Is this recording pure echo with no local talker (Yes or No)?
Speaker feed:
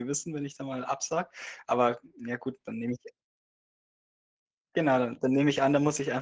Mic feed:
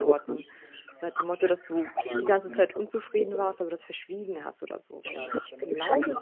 No